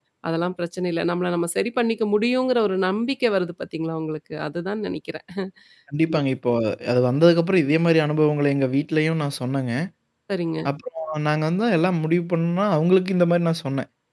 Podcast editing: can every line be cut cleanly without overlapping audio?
Yes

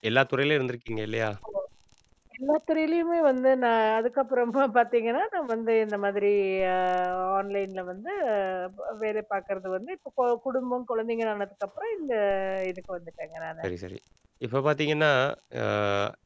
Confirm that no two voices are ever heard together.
Yes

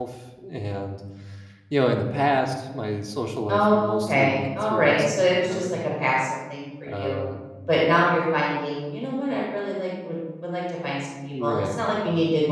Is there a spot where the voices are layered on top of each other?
Yes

